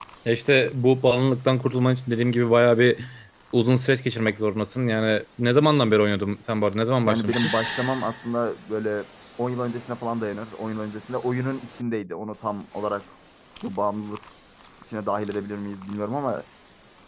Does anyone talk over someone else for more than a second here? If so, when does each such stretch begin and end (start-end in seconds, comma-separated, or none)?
none